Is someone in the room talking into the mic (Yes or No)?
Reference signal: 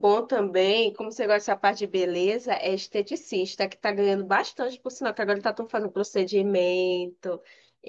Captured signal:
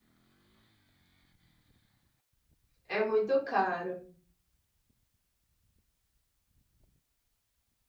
Yes